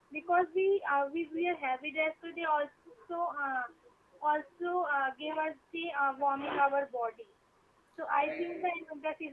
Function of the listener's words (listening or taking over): listening